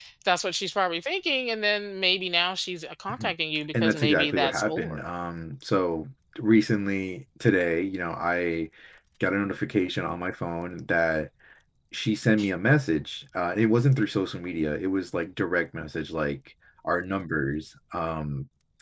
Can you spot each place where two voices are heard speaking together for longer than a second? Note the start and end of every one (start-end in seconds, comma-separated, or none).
3.8-5.0